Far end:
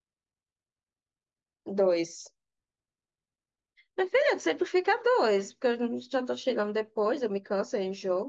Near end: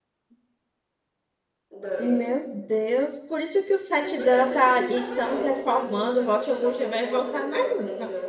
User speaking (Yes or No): Yes